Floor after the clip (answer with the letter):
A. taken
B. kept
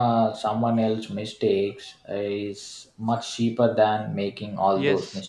A